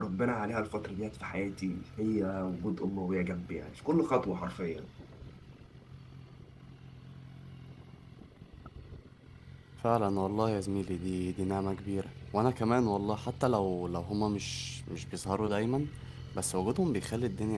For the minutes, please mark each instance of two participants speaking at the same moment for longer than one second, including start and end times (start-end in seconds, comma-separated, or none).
none